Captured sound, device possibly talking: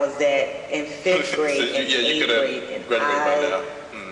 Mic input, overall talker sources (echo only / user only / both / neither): echo only